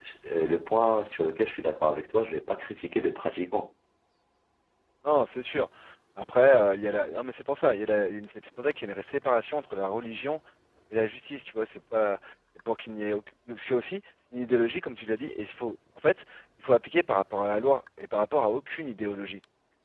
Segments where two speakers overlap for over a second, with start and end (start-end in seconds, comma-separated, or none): none